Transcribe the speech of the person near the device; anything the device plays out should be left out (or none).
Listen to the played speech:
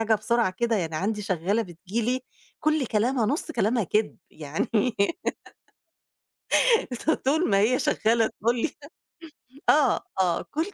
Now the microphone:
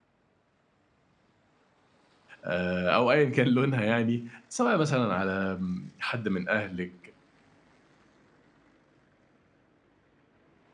آآ أو أيًا كان لونها يعني، سواء مثلًا على آمم حد من أهلِك،